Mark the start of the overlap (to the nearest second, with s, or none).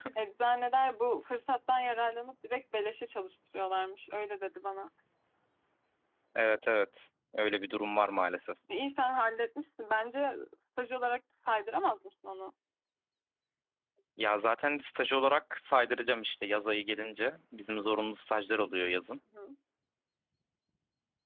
none